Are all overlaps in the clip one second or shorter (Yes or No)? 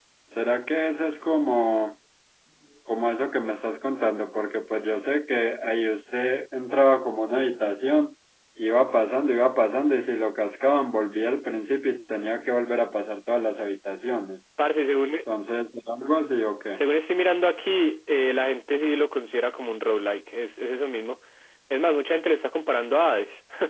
Yes